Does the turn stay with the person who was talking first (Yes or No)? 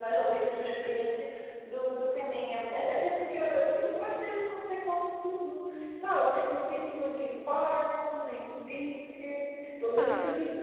Yes